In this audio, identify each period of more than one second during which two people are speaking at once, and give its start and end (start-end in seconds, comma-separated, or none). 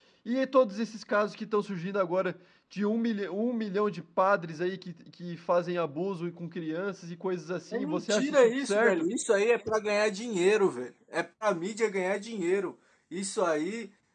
7.7-9.1